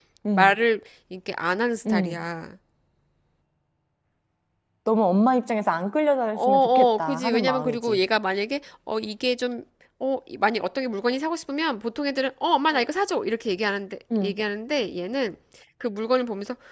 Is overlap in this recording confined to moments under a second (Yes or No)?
No